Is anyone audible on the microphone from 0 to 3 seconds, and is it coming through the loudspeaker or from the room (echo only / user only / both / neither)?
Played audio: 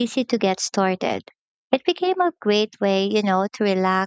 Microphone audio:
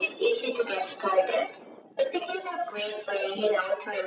echo only